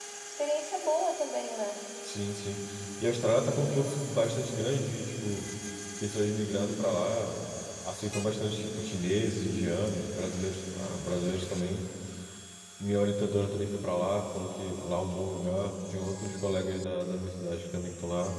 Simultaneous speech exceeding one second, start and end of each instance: none

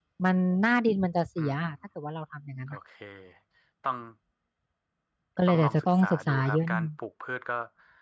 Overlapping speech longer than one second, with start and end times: 5.5-6.9

